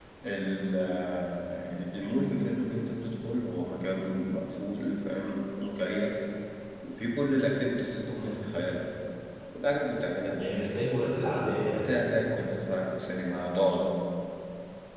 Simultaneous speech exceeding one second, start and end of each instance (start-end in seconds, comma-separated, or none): none